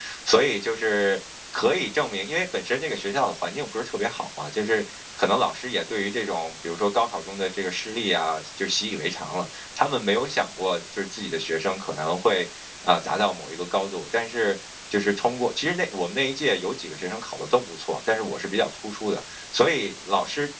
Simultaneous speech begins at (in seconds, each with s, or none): none